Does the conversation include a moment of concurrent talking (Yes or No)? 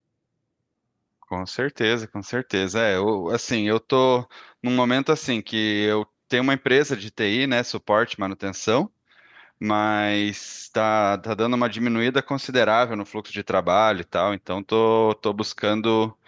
No